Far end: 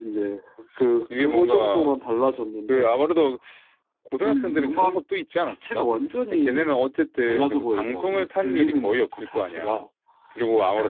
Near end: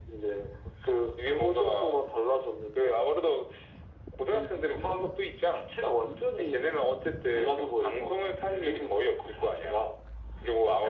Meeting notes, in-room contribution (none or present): none